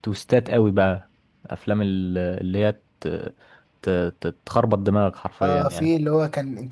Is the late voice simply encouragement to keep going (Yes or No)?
No